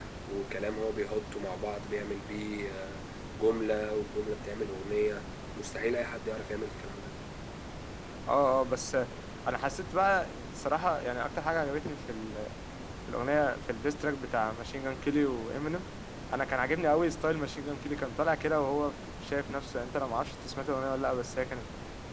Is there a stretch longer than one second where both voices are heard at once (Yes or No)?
No